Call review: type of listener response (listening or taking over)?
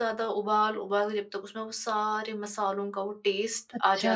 taking over